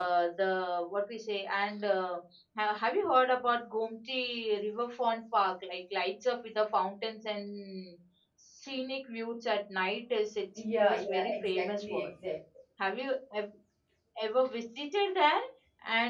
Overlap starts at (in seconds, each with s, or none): 10.6 s